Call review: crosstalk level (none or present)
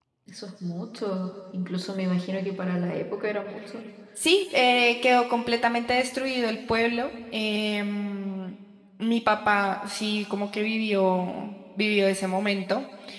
none